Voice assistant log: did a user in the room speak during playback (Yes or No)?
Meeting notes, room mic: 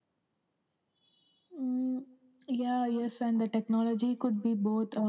No